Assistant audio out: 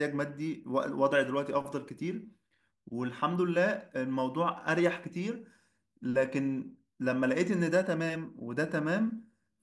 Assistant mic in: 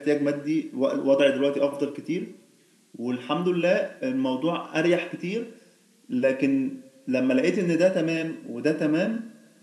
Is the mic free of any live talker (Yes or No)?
Yes